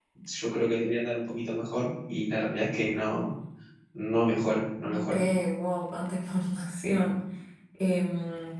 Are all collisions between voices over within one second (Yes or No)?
Yes